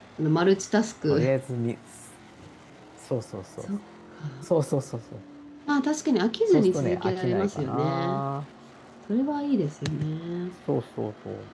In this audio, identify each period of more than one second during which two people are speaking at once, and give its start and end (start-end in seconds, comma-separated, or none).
6.5-8.2